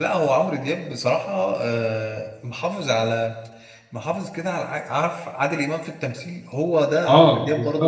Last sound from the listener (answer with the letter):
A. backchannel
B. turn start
A